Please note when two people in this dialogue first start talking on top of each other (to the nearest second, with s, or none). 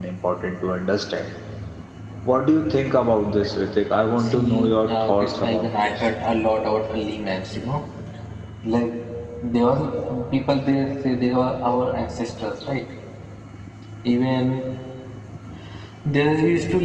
4 s